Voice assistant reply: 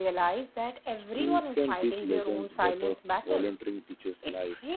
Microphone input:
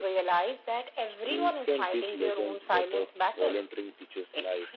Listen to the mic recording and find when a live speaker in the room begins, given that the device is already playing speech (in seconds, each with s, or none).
none